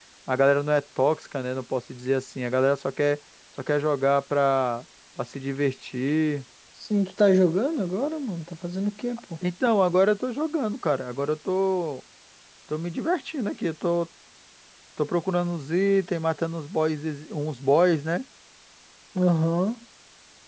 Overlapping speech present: No

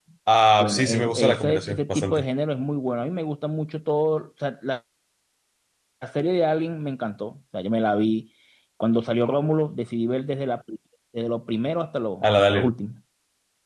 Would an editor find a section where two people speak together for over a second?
Yes, from 0.6 s

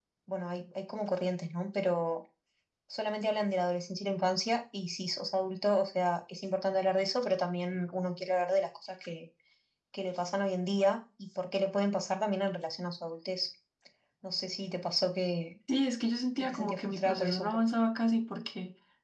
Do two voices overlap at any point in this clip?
Yes, from 16.4 s

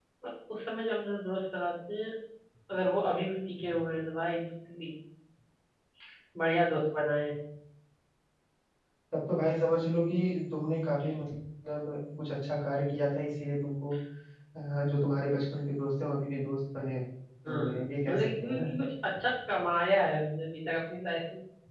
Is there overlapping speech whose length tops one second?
Yes, from 17.5 s

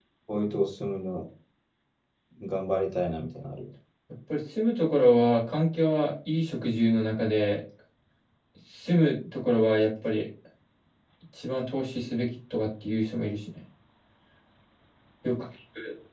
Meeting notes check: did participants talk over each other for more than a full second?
No

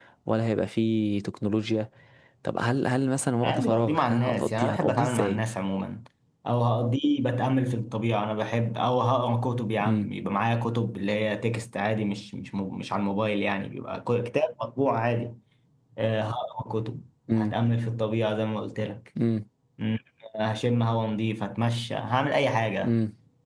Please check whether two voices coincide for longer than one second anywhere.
Yes, from 3.4 s

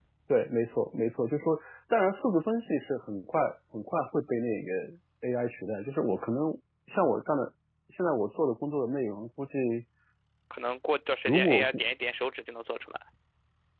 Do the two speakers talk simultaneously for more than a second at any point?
No

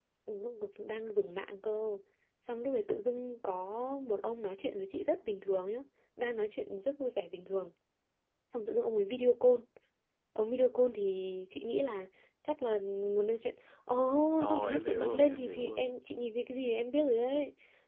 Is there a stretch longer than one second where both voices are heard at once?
Yes, from 14.4 s

